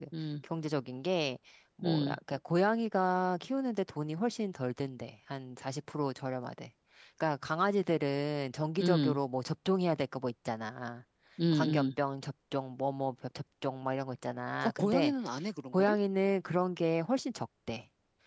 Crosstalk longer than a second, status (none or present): none